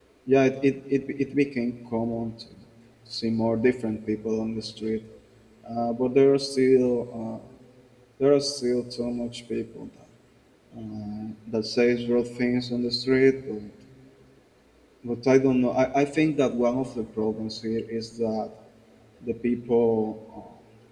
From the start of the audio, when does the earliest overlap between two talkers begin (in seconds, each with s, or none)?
none